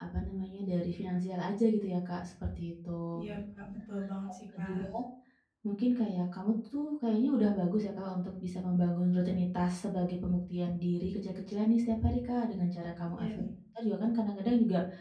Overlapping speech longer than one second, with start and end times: none

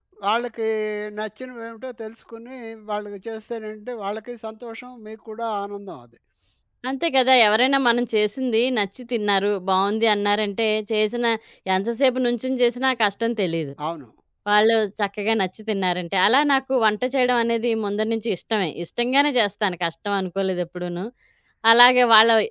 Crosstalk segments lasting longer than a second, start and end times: none

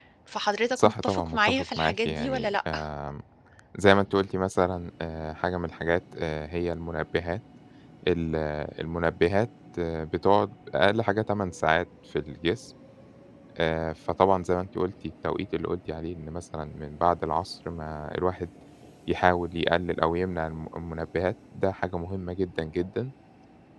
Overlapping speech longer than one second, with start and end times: 0.7-2.6

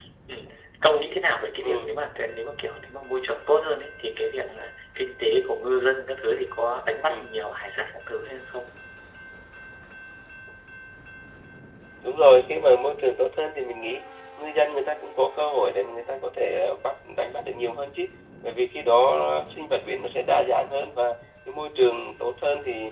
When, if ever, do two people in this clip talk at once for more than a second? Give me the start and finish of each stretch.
none

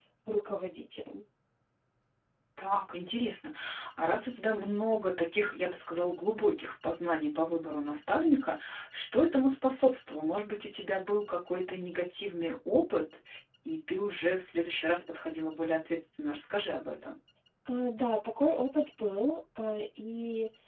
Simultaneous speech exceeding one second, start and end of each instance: none

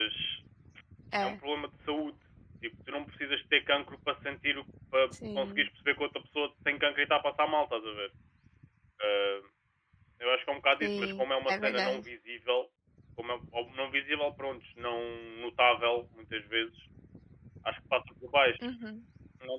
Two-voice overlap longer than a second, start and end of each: 10.8-12.0

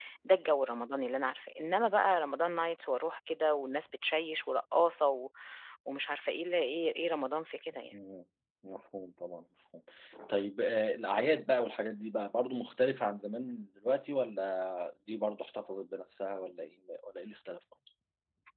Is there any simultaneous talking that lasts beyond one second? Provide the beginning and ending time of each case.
none

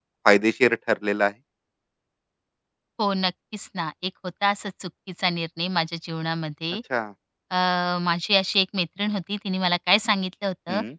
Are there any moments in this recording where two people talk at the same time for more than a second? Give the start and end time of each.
none

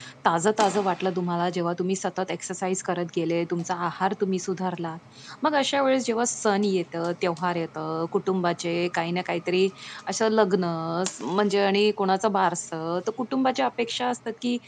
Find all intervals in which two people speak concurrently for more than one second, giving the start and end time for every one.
none

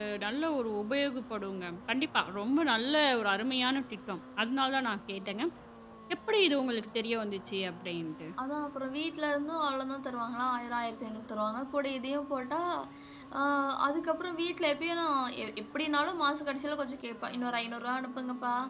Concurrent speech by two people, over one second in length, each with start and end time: none

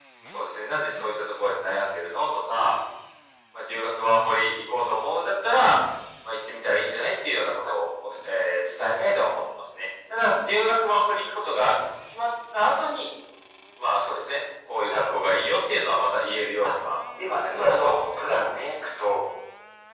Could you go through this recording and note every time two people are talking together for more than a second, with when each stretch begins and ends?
17.4-18.7

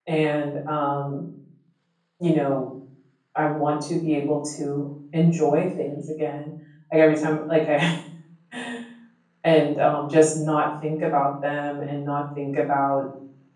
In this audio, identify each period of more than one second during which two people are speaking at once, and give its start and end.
none

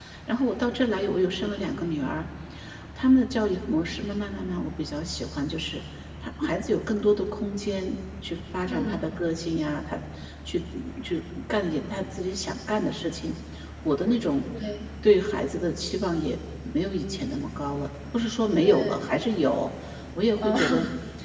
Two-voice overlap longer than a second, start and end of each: none

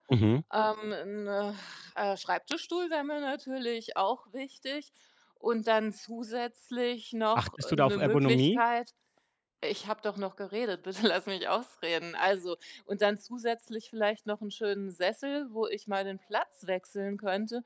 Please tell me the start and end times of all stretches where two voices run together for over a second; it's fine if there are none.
7.3-8.6

